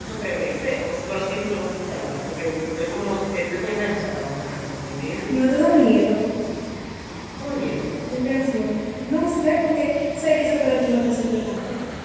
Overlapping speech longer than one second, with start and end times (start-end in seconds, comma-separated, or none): none